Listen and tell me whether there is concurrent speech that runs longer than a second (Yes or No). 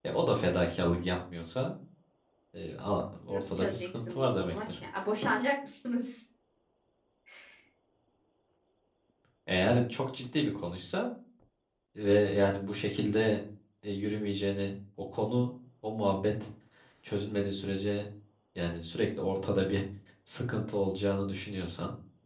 Yes